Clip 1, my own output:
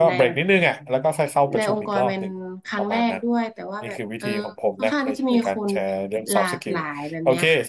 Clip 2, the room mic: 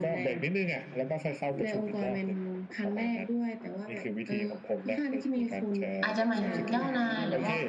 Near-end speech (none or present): present